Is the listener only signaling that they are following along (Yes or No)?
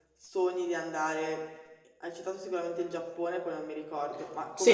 No